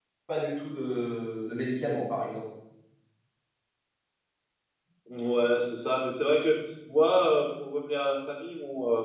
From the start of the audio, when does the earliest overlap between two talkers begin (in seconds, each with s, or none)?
none